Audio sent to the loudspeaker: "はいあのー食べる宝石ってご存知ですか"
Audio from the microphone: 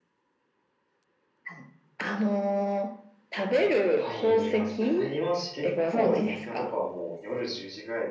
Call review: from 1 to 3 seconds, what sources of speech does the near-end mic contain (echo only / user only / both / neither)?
echo only